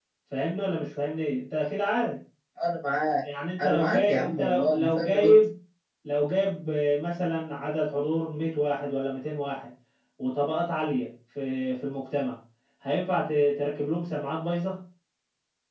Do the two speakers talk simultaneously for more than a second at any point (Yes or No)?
Yes